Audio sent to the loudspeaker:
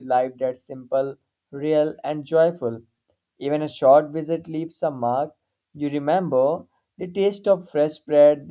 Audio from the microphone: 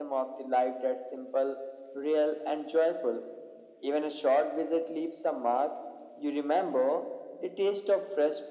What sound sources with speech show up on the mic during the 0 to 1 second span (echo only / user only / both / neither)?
echo only